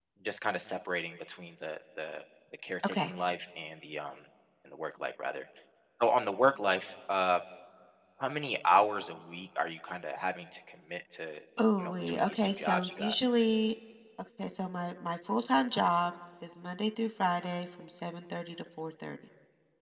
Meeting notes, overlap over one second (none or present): present